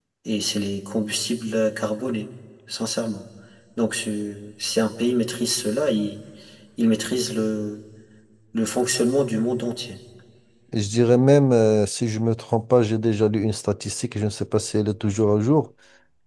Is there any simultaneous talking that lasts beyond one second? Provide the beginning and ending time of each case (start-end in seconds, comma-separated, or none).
none